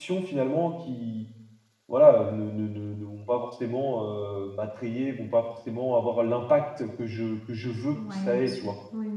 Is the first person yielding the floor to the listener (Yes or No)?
Yes